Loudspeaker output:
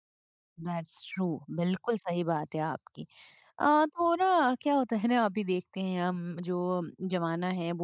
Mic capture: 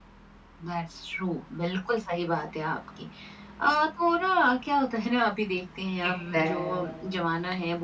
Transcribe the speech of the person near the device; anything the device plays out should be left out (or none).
एग्ज़ैक्टली।